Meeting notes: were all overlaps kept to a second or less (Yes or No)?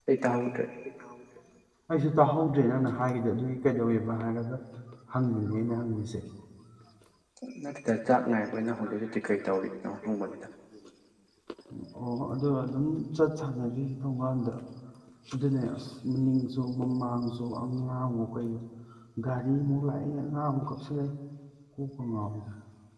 Yes